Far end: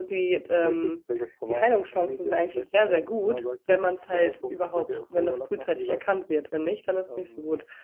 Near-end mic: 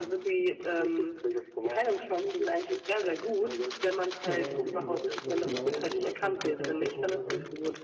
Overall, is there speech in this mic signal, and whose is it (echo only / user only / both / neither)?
both